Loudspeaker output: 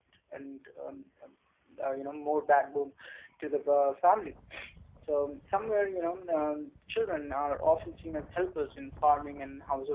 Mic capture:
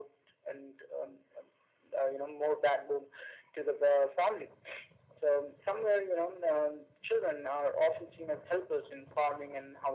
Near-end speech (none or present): none